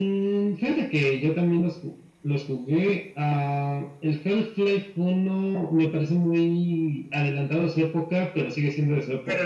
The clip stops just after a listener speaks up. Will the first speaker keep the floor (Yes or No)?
No